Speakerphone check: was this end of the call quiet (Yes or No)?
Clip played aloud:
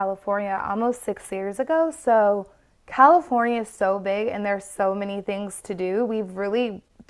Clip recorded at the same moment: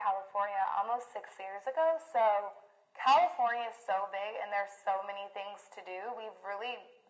Yes